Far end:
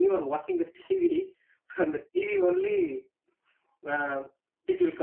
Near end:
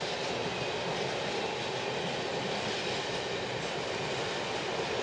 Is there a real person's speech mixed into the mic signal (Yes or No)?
No